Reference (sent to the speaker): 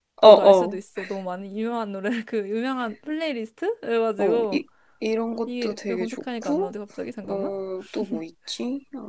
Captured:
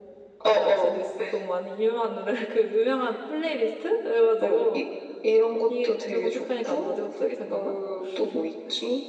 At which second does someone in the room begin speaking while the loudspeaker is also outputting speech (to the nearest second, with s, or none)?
none